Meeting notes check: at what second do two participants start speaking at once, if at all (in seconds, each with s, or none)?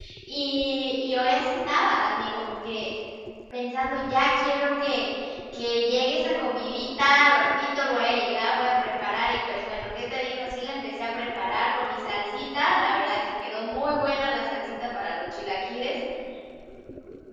none